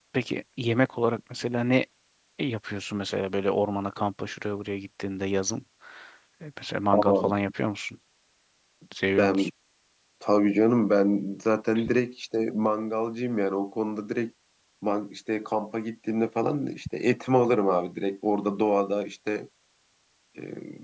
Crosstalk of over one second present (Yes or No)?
No